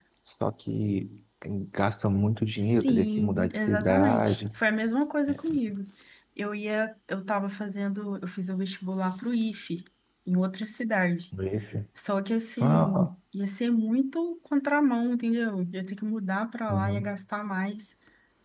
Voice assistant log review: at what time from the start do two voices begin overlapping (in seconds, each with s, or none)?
2.5 s